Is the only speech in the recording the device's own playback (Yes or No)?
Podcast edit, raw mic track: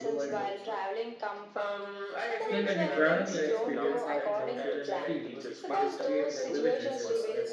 No